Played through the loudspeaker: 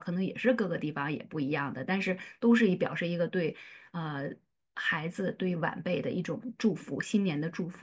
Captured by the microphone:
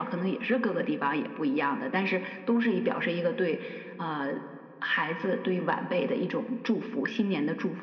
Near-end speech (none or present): none